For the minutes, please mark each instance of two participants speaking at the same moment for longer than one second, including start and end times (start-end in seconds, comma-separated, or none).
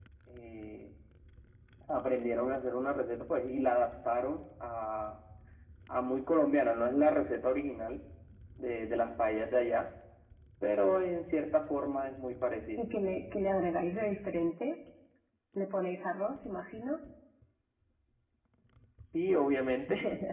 none